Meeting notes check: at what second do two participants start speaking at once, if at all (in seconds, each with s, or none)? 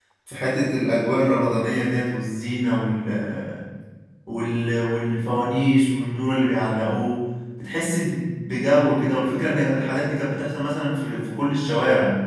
none